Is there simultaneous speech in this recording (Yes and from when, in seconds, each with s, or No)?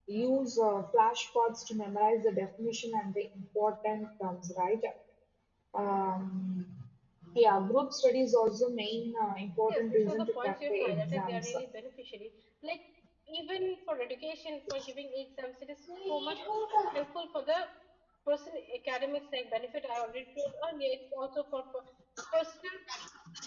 Yes, from 9.7 s